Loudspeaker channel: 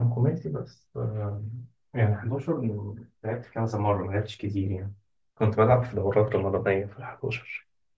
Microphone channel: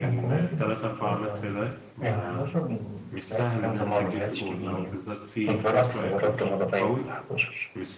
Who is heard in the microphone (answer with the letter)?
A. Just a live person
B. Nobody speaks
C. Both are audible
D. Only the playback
C